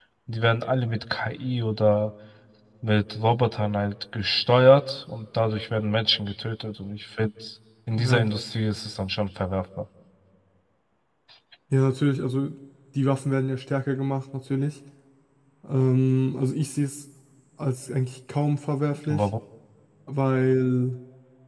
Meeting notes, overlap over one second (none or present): none